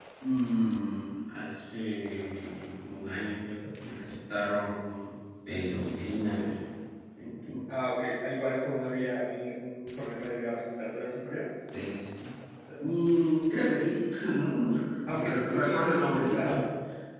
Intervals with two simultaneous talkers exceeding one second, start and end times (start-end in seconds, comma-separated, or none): 15.1-16.5